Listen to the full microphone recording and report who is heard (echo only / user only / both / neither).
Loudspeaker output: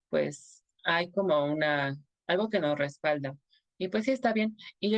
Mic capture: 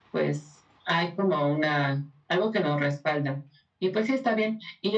echo only